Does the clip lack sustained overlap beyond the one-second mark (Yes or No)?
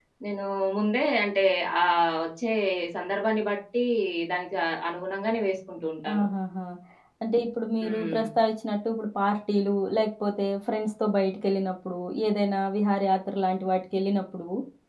Yes